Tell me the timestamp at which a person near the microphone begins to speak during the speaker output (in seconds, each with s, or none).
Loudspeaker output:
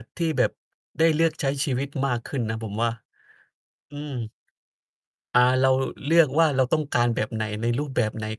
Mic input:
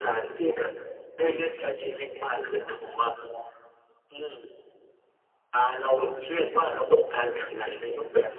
none